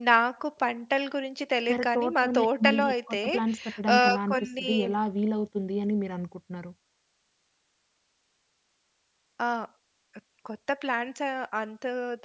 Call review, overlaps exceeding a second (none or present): present